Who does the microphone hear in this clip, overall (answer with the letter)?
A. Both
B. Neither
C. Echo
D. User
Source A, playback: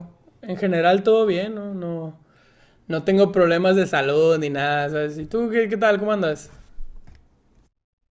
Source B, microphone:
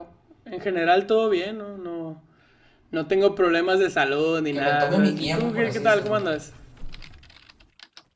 A